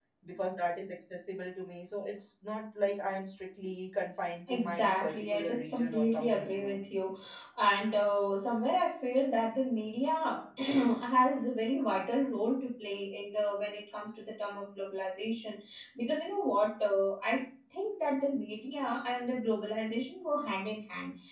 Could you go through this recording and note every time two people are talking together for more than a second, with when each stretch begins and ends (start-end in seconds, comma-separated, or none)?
4.5-6.8